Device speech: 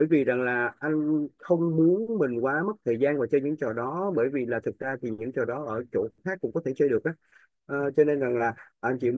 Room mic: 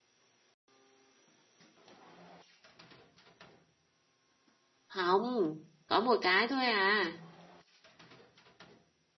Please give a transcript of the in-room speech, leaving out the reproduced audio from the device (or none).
không có một cái thôi à